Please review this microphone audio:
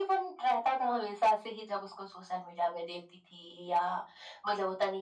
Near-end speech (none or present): none